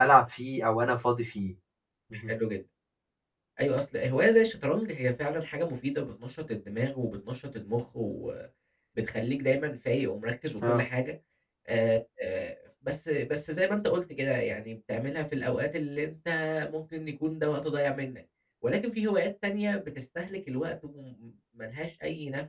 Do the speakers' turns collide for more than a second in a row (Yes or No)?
No